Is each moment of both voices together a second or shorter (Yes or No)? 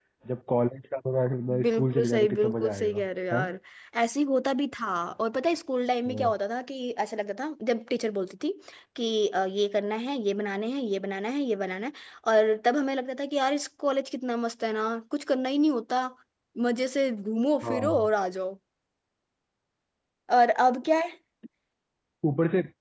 No